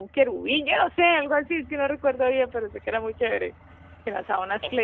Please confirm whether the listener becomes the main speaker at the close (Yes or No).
No